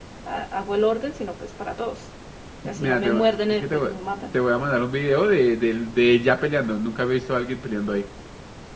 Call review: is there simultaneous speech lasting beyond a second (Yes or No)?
Yes